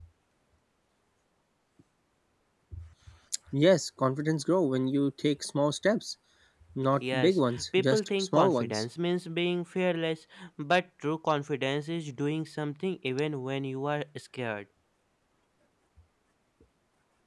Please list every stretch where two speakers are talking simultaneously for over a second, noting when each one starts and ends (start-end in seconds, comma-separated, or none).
7.1-8.8